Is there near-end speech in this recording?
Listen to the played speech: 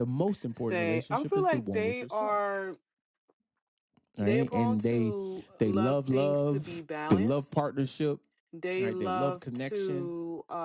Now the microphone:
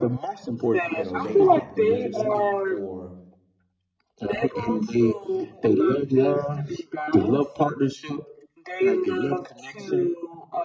Yes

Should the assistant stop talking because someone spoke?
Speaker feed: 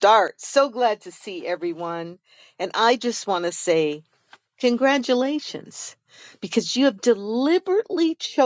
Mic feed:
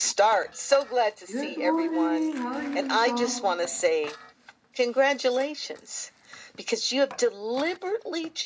Yes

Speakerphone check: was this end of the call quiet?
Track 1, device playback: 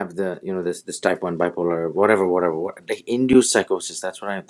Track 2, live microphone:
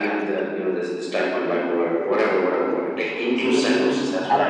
No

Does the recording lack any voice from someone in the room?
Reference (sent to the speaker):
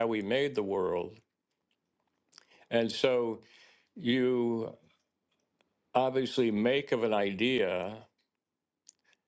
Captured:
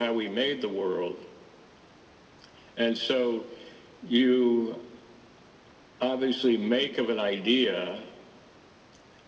Yes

